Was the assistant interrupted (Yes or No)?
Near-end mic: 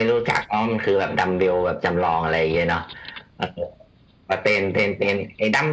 No